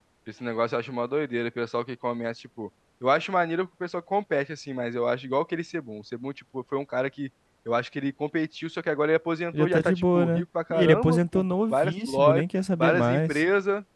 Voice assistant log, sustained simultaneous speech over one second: present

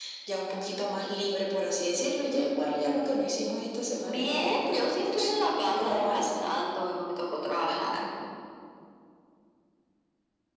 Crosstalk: present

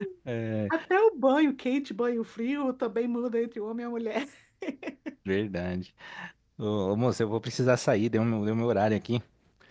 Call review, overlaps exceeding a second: none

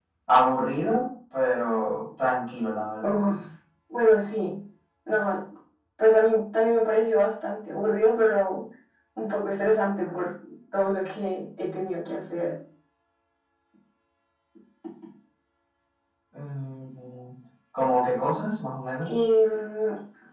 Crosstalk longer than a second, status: none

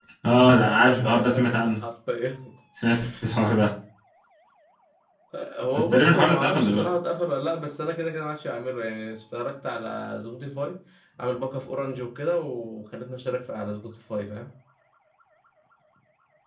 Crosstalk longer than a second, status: present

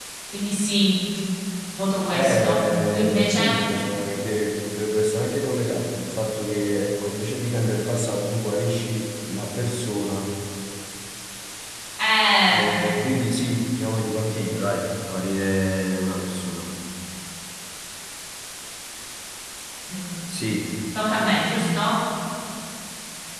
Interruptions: present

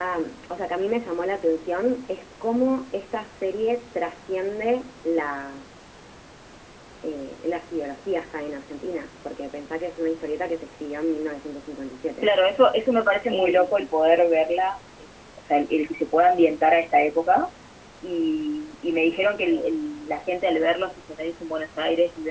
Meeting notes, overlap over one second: none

